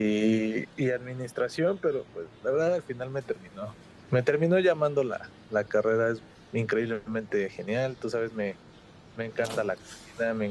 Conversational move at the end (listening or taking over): listening